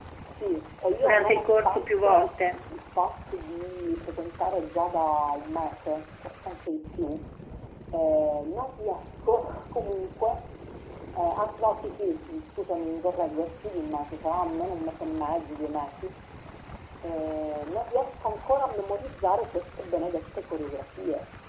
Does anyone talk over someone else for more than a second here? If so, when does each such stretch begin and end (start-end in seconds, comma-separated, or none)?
1.0-2.3